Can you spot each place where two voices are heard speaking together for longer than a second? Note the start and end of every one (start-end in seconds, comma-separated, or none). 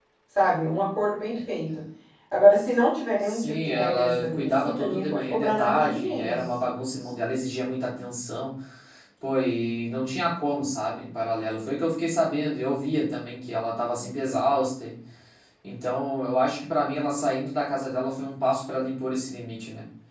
3.2-6.3